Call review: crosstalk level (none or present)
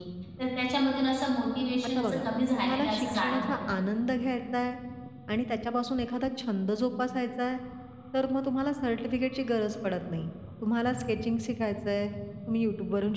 present